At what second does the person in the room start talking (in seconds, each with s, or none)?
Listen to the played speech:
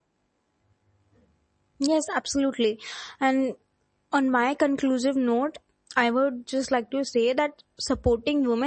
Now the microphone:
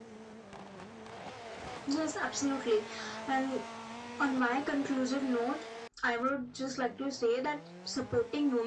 none